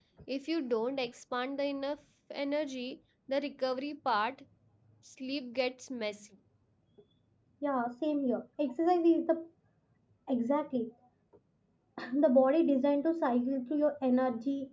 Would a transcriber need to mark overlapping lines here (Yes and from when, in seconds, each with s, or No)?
No